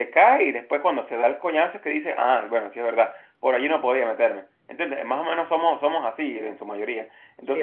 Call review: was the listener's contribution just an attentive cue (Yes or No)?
No